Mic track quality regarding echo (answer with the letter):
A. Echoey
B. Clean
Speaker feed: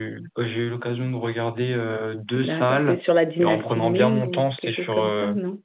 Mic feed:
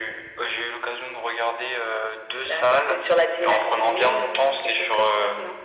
A